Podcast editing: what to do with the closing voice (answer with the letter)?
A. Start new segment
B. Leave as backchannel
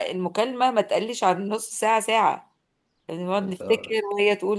B